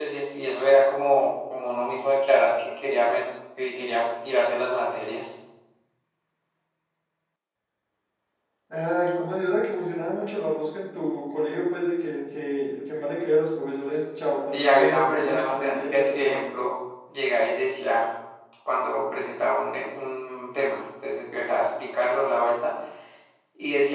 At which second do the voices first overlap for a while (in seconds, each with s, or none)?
14.5 s